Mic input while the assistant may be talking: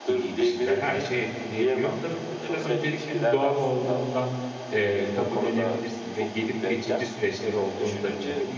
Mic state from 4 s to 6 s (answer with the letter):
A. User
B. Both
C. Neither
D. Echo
B